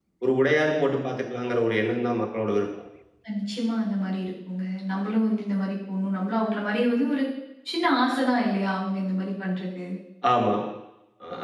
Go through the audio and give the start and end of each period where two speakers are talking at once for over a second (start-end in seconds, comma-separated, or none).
none